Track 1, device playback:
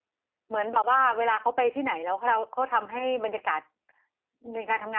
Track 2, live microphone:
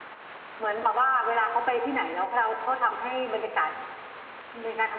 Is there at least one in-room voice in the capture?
No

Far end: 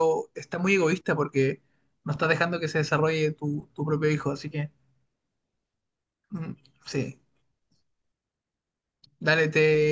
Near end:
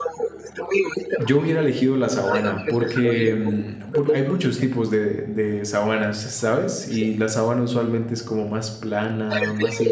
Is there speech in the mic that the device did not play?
Yes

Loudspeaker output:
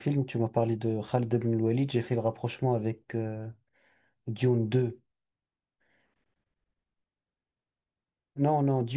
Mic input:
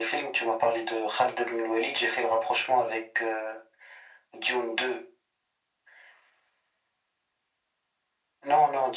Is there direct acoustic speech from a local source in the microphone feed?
No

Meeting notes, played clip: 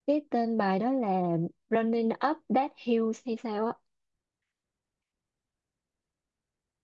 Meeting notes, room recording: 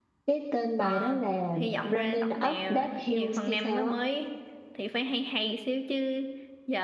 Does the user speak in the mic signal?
Yes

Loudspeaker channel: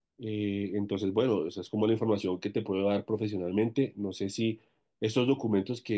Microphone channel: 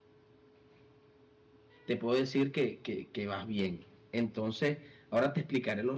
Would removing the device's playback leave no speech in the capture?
No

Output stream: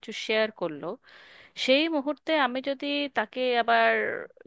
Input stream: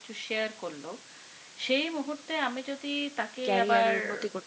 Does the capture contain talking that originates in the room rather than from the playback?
Yes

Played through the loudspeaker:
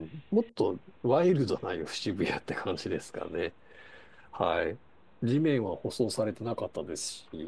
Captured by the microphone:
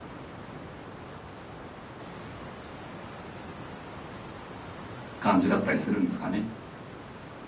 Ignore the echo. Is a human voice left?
Yes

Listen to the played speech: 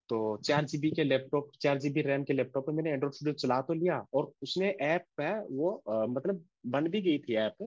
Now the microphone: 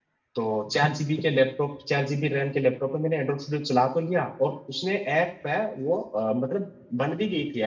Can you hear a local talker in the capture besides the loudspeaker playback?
No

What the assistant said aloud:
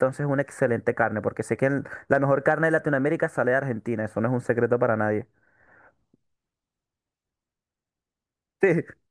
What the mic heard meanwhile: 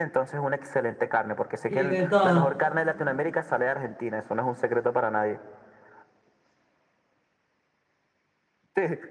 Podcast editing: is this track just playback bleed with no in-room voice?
No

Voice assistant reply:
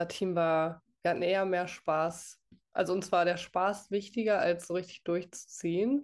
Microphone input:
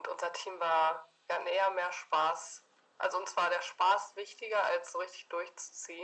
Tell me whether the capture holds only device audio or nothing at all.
Yes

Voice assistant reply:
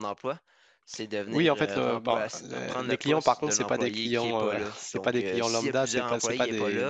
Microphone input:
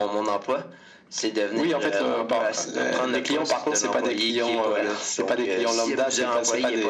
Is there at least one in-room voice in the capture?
No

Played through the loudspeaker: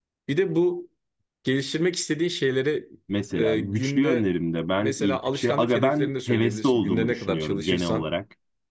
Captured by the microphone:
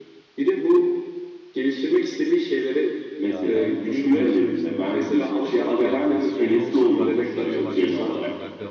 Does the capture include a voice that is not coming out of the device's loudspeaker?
Yes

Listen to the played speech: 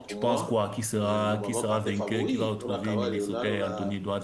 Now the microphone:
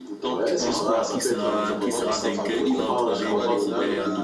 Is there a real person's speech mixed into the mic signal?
Yes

